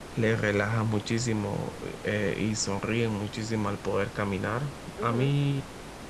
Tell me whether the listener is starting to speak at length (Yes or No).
No